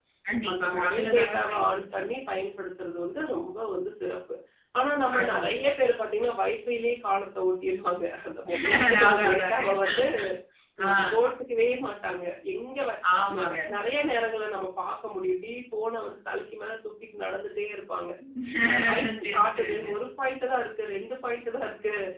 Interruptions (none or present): present